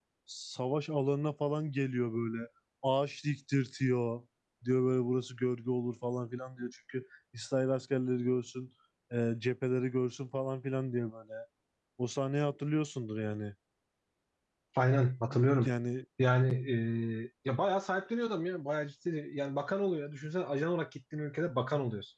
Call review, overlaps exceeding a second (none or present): none